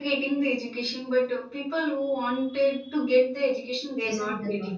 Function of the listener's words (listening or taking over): taking over